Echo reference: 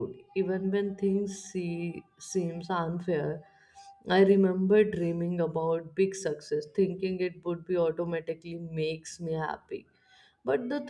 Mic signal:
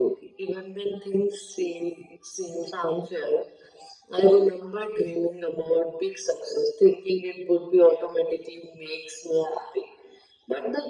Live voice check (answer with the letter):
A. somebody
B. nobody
B